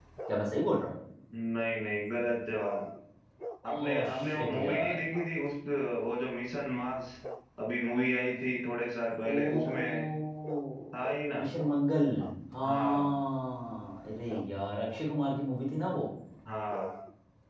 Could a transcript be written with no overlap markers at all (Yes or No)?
No